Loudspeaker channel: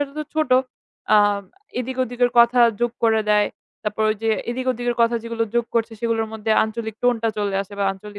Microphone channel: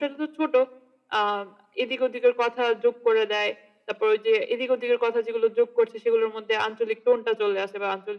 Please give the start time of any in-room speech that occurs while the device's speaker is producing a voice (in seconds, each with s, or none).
none